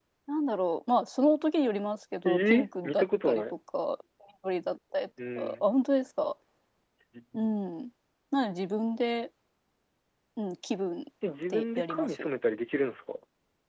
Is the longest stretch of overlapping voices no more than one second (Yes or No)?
No